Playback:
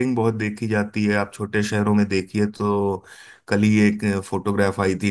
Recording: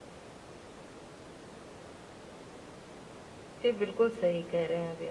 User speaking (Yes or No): Yes